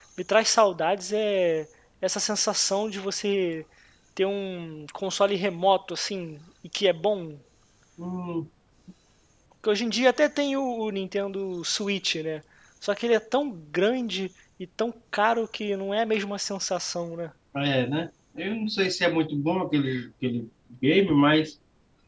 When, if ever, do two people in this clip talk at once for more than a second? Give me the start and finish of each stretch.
none

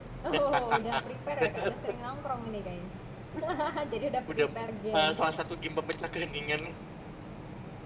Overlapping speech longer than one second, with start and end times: none

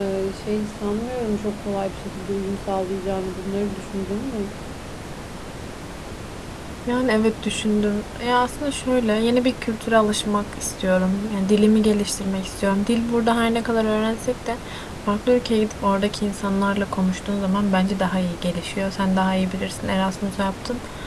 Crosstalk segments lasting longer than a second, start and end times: none

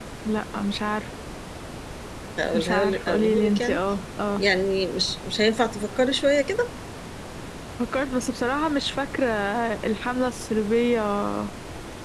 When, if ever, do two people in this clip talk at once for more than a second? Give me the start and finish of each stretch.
2.5-3.8

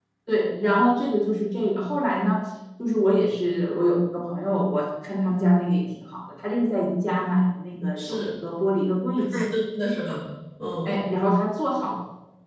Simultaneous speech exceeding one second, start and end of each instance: none

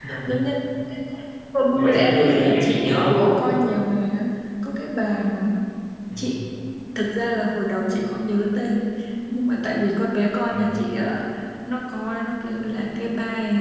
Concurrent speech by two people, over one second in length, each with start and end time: 1.7-3.3

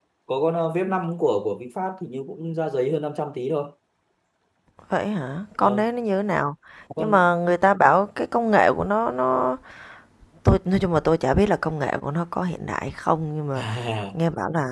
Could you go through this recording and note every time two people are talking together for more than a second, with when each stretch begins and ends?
none

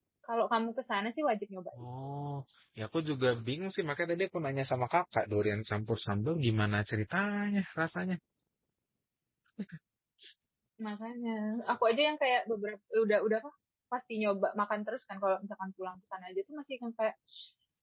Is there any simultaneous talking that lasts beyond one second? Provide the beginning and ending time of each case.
none

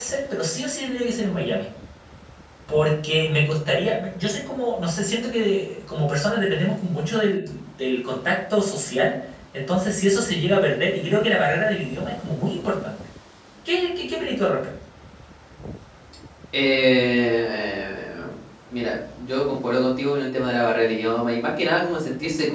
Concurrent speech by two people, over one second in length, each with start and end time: none

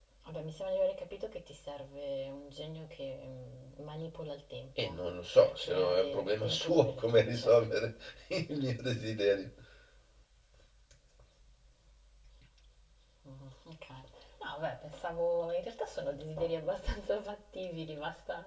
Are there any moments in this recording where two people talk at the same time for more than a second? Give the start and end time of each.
5.4-7.5

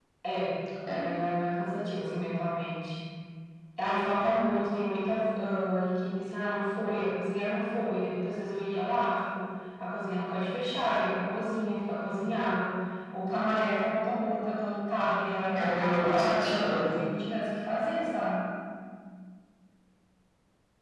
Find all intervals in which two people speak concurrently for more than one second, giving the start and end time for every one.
15.6-17.0

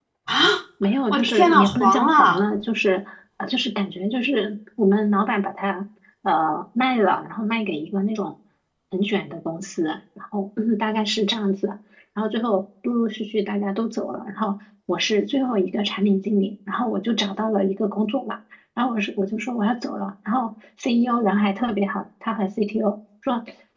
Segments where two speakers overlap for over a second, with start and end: 1.1-2.4

